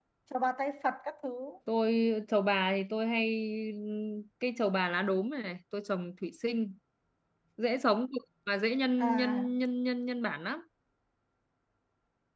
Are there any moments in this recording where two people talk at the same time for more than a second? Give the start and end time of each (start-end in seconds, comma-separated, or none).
none